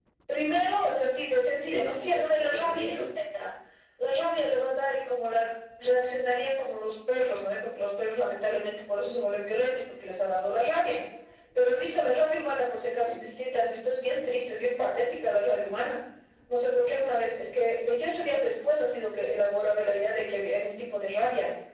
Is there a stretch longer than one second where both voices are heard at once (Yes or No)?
Yes